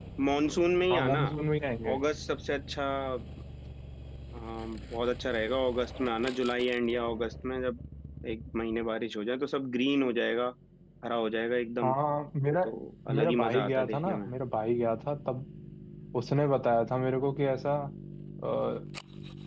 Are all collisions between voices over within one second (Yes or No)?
No